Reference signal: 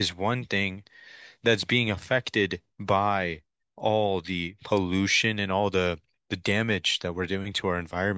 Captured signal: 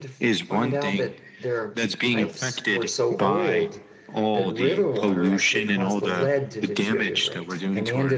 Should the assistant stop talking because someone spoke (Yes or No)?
Yes